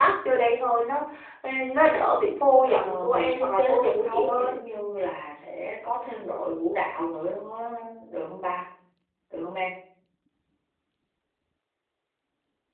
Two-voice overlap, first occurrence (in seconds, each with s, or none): 2.6 s